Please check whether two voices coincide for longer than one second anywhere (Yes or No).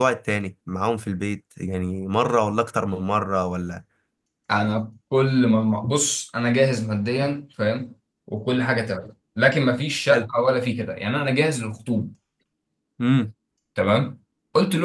No